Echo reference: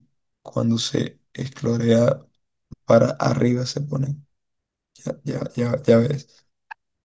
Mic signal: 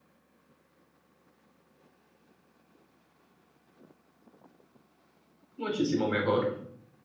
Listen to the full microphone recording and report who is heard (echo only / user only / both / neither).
user only